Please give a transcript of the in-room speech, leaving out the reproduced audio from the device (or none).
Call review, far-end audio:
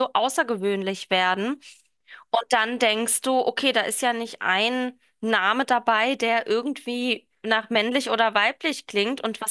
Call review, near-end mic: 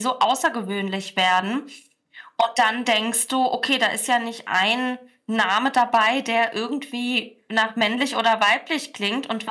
none